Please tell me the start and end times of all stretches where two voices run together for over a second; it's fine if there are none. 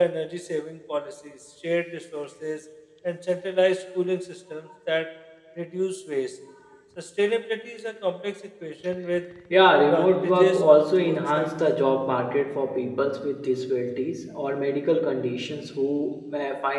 9.8-11.5

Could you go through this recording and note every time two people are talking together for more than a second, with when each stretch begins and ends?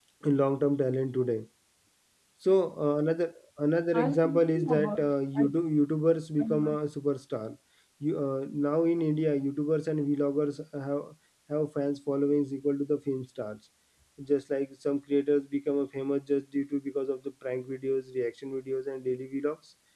3.9-5.5

